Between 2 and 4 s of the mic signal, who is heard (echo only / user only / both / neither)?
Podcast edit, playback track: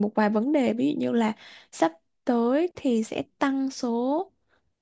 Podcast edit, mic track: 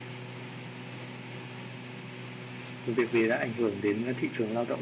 user only